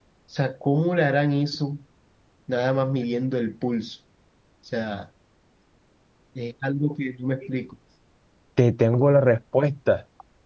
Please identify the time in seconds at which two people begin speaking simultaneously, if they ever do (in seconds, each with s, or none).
none